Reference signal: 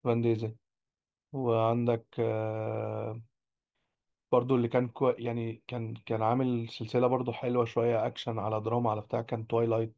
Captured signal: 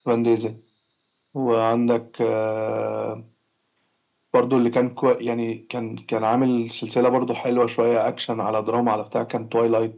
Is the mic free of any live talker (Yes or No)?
Yes